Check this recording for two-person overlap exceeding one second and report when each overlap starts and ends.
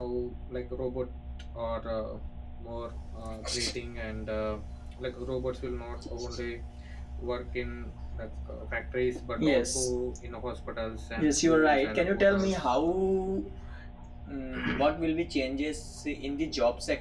11.2-12.6

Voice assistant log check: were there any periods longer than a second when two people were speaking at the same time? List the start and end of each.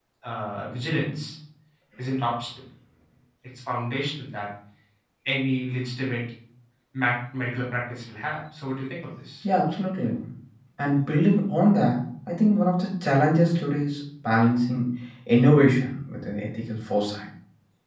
none

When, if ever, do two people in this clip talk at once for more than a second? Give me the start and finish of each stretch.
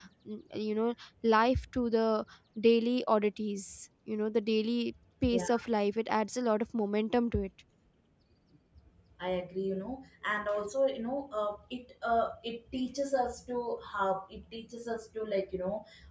none

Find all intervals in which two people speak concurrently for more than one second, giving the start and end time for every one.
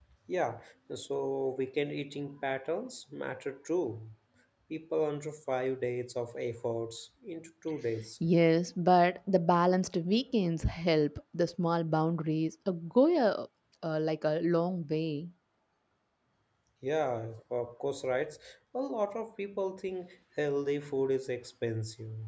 none

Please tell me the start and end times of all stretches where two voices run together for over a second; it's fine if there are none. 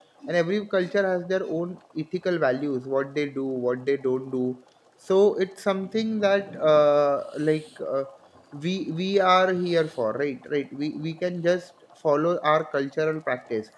none

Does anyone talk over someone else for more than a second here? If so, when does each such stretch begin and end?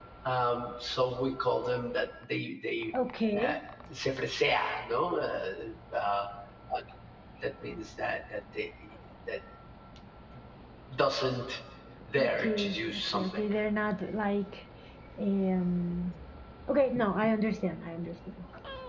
12.2-13.5

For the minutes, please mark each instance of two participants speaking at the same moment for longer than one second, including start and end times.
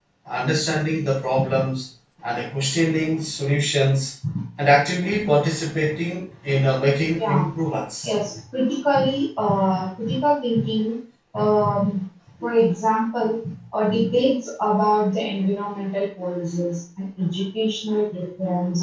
none

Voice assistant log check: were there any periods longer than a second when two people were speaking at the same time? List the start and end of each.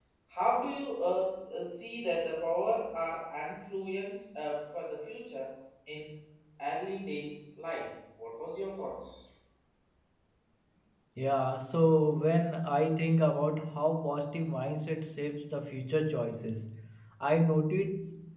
none

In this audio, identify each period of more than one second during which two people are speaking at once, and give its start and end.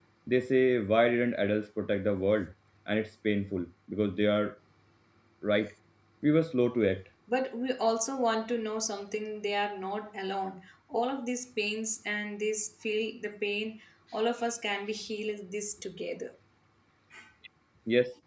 none

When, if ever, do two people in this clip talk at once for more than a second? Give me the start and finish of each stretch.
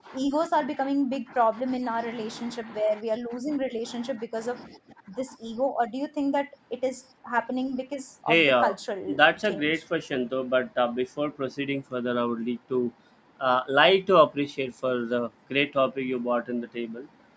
none

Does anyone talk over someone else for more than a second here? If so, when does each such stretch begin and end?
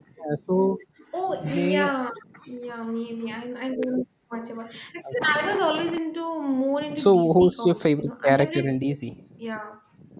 7.0-8.7

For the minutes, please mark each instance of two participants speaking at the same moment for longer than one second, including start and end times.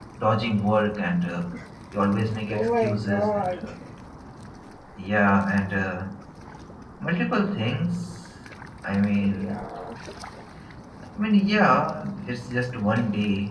2.5-3.7

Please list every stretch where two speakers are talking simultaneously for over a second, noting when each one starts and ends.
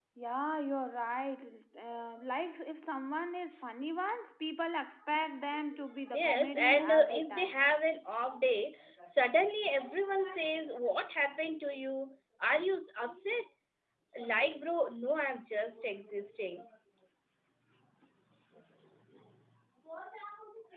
6.1-7.6

